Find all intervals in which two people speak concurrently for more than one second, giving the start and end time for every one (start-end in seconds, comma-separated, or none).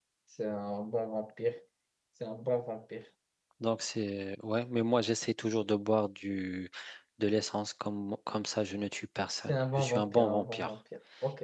9.5-10.7